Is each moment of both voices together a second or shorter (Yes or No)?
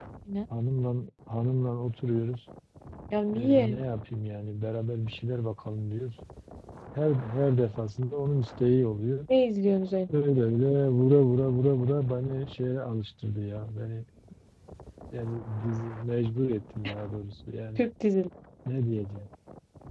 Yes